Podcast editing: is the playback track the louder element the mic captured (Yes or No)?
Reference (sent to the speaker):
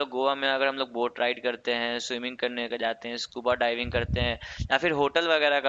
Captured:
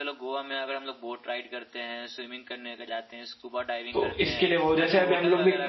No